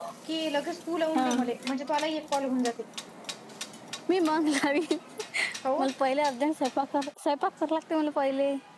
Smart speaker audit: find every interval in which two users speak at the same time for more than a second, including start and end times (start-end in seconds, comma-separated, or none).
none